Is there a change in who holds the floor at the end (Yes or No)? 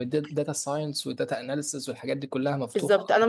Yes